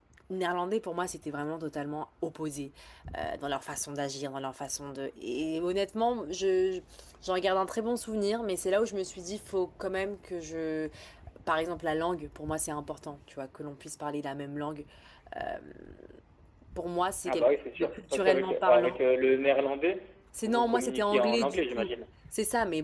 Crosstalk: present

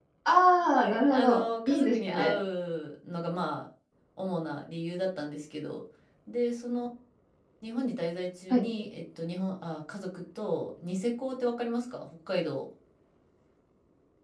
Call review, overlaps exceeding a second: present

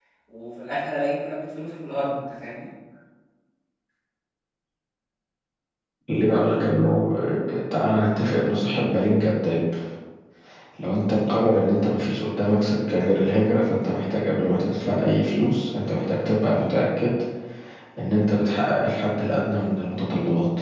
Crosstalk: none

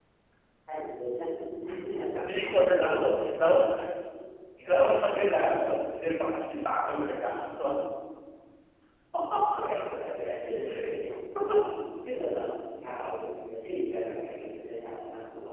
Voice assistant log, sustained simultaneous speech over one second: present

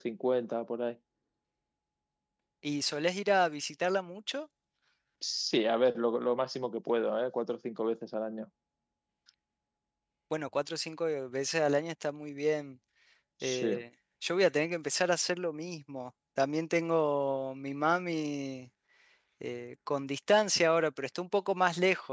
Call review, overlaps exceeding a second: none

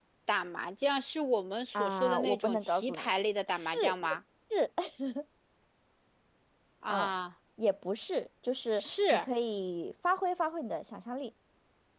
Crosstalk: present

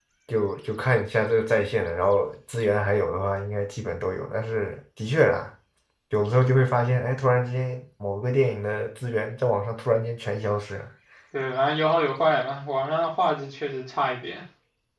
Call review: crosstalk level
none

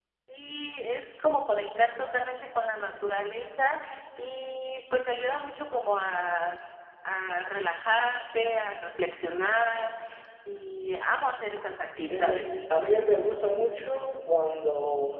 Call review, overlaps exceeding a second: none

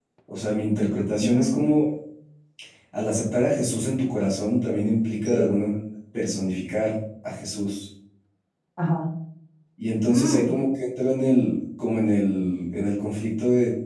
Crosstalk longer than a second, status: none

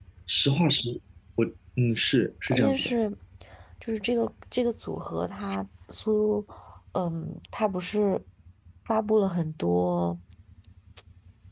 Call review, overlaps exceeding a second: none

